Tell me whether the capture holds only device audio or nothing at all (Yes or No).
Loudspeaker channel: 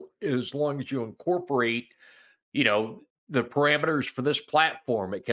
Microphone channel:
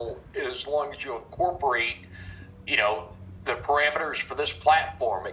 Yes